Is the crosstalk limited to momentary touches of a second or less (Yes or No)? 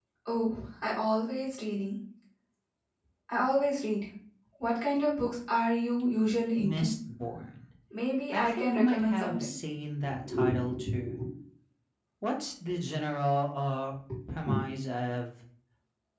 No